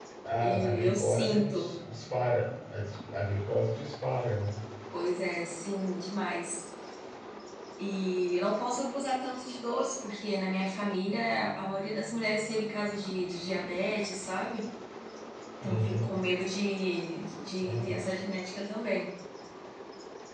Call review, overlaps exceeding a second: present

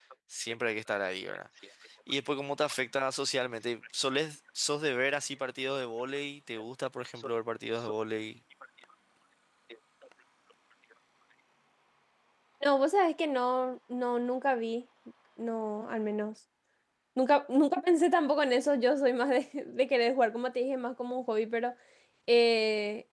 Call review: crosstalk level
none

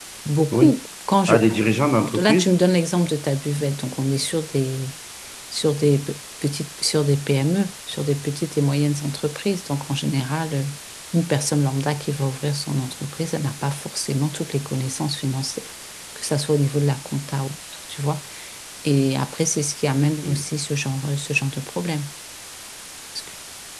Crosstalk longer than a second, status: none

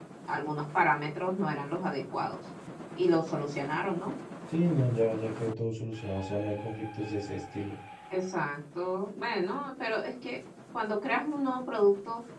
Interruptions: none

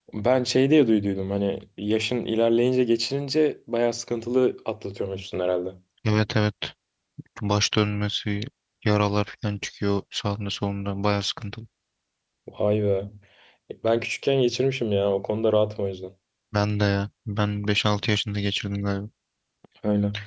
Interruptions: none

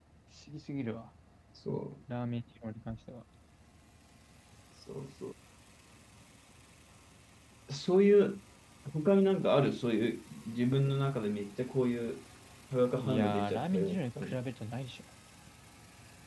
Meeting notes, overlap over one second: present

